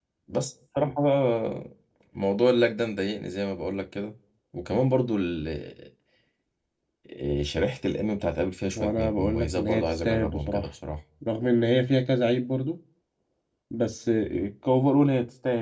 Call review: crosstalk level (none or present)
present